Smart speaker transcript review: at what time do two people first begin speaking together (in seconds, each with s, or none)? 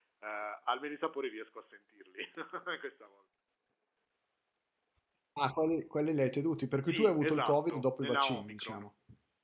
6.8 s